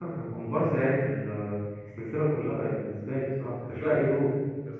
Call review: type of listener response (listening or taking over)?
taking over